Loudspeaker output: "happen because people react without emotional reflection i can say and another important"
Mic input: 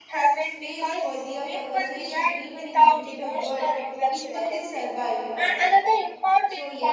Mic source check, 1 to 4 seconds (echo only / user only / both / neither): both